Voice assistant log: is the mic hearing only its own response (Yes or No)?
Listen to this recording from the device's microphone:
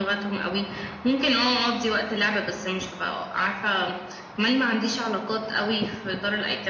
Yes